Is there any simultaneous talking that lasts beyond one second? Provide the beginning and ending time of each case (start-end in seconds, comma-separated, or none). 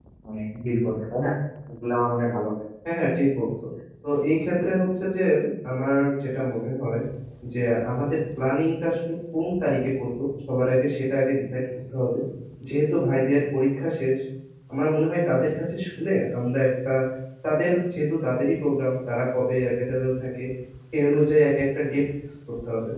none